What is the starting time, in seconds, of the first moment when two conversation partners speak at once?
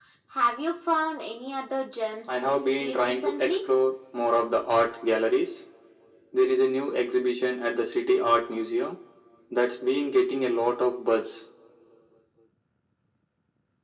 2.3 s

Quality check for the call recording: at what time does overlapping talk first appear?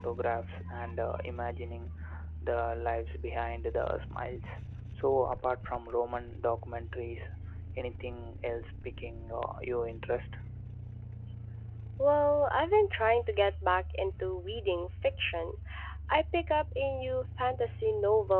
none

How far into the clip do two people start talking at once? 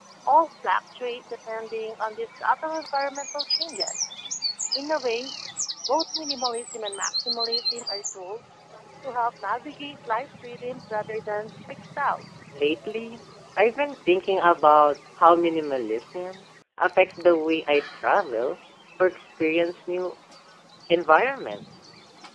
none

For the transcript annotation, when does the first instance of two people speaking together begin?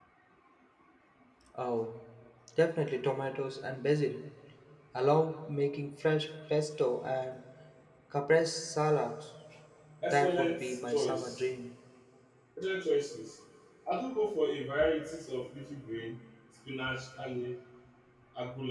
10.0 s

